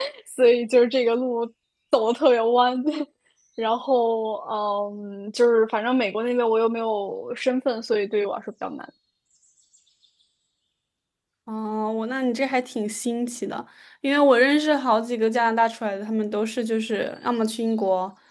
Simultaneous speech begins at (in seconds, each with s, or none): none